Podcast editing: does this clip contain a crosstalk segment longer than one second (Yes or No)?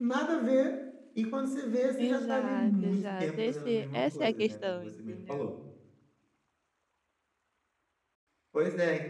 Yes